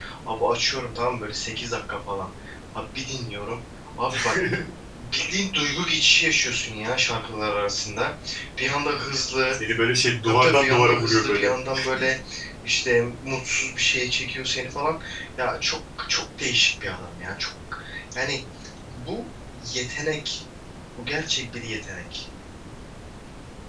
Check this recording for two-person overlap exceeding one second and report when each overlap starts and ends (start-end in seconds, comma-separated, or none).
10.3-11.5